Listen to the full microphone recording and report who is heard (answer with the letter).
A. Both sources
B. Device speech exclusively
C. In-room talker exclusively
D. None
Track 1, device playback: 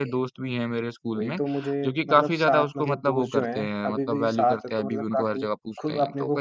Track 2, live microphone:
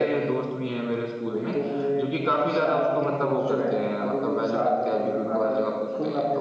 B